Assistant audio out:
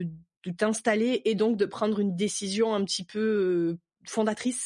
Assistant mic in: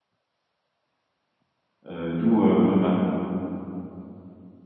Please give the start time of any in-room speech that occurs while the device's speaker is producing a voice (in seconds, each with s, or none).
1.9 s